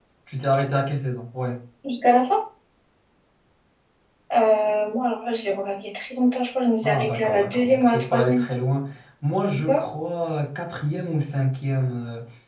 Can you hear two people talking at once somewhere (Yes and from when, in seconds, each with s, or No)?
Yes, from 6.8 s